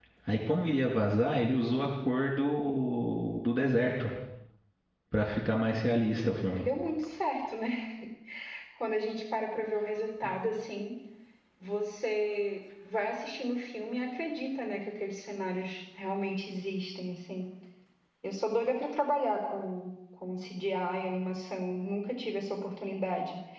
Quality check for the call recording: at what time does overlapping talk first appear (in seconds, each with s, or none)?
none